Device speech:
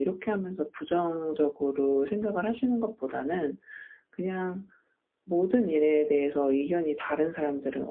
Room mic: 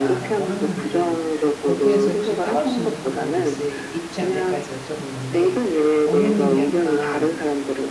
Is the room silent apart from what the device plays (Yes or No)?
No